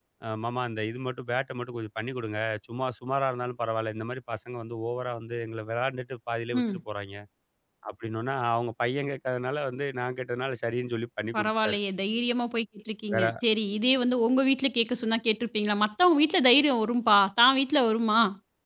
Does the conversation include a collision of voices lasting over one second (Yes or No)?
No